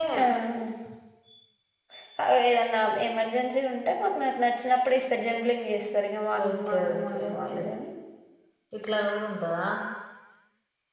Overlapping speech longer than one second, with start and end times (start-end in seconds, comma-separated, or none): 6.4-7.6